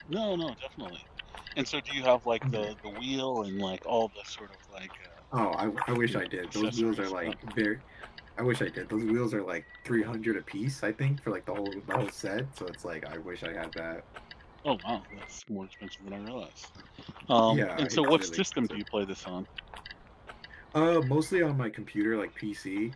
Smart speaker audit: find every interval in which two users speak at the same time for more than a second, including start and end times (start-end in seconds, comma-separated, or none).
6.1-7.3, 17.5-18.8